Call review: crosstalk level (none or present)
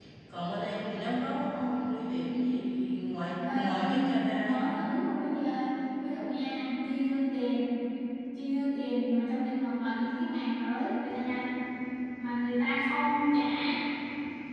present